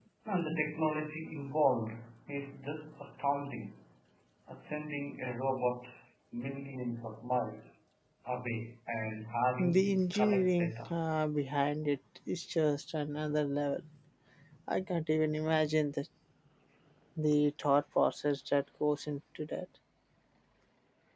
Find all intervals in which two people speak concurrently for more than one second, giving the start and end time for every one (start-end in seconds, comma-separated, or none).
9.6-10.9